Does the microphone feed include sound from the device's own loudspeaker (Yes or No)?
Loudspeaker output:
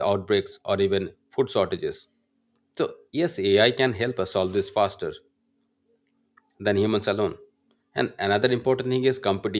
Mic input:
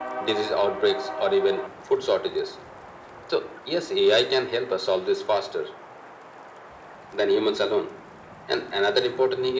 Yes